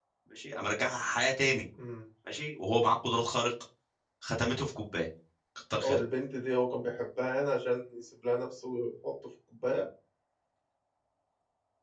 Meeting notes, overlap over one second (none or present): none